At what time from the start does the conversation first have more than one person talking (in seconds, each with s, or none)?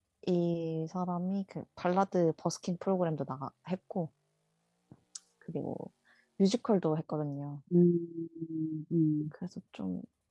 none